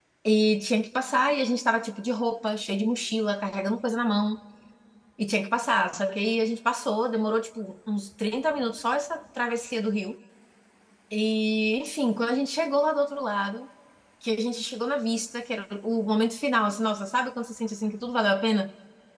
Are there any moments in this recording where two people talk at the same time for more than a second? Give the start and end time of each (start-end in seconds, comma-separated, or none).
none